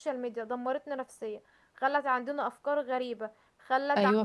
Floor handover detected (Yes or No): No